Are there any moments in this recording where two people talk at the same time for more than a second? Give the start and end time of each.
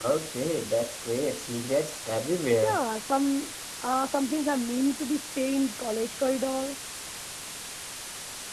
none

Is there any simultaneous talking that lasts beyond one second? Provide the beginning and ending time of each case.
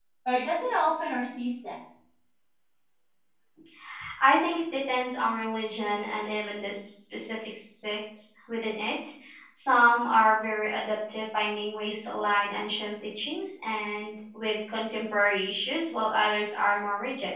none

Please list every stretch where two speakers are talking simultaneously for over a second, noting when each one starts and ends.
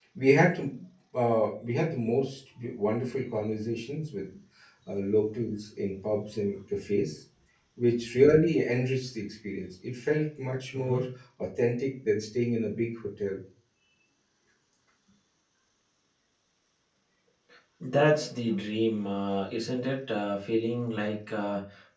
none

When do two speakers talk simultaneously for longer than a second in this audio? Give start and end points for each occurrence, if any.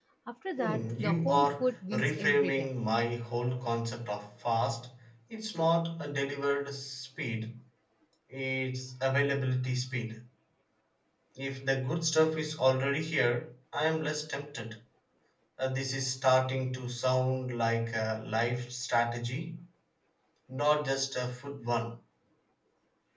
0.6-2.7

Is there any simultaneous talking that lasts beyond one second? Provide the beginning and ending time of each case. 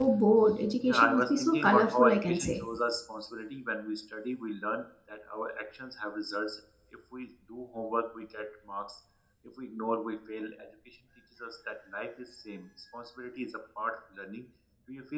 0.8-2.6

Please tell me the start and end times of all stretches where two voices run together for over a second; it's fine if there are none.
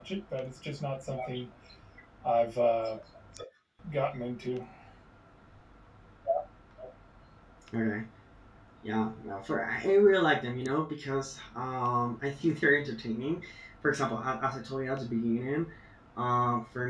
none

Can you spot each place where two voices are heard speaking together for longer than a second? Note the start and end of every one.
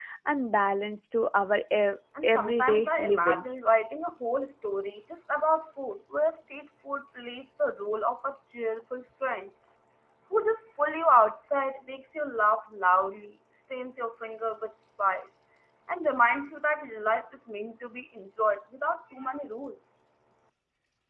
2.2-3.5

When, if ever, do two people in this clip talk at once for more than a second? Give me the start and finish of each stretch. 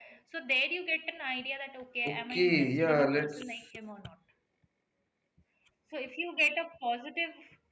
2.1-3.5

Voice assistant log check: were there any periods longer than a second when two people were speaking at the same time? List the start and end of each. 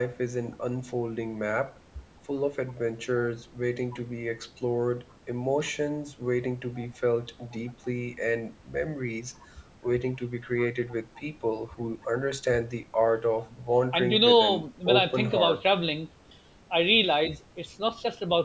13.9-15.7

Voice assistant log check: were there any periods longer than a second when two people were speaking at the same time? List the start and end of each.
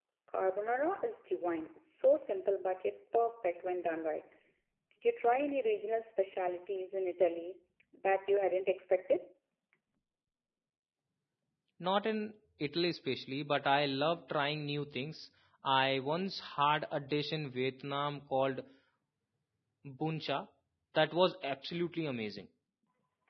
none

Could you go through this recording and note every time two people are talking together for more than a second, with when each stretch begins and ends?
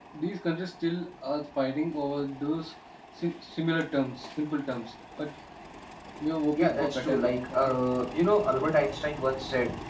6.5-7.7

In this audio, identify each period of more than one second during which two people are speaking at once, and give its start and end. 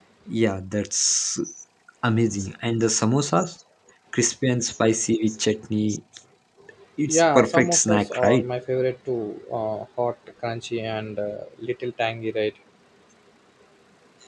7.1-8.5

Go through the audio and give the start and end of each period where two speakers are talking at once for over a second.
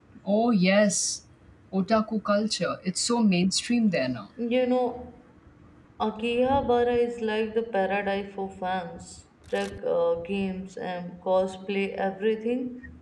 none

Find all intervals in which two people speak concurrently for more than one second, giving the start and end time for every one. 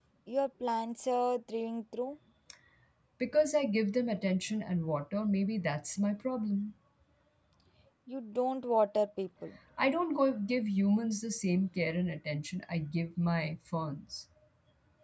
none

